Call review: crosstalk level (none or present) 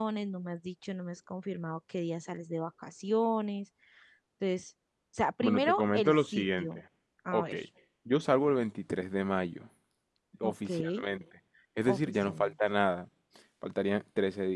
present